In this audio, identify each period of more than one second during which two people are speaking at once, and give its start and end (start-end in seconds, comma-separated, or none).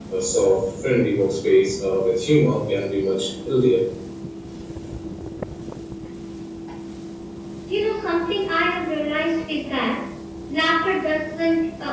none